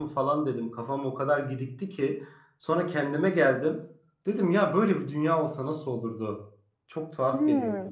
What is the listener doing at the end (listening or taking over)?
taking over